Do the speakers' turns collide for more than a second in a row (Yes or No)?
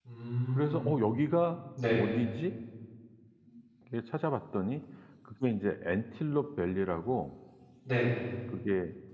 No